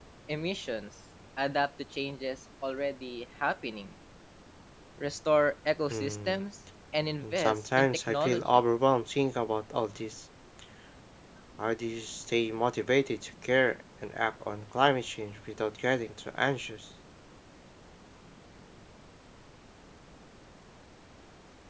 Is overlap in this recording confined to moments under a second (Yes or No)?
No